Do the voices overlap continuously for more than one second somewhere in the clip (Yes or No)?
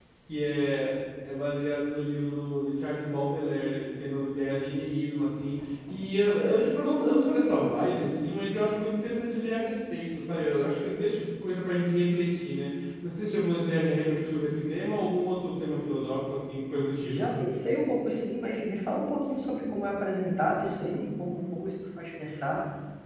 No